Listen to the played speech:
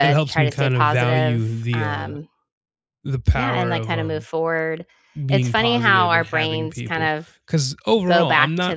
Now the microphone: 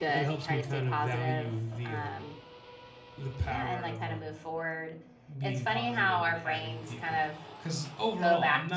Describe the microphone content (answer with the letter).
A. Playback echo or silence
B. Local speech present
A